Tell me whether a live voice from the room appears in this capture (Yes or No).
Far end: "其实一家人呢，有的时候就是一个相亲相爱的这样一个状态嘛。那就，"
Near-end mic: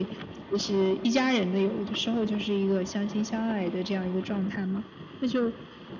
No